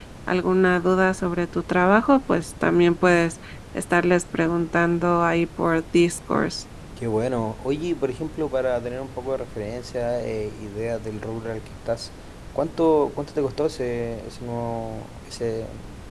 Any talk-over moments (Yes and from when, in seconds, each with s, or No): No